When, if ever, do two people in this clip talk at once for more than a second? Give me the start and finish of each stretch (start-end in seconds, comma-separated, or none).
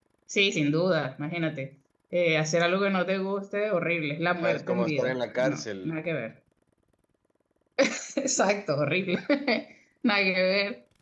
4.4-5.9